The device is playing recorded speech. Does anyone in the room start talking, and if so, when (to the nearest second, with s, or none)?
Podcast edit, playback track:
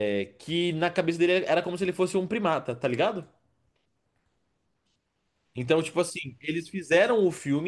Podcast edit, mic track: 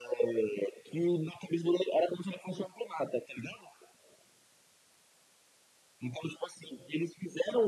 none